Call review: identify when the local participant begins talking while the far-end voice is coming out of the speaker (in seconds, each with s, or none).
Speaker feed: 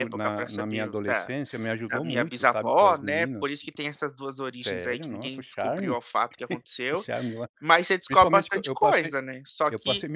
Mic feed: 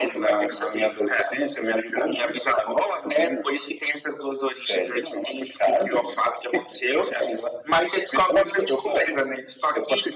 none